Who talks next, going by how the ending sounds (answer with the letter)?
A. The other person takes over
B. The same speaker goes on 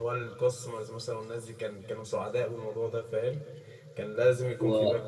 B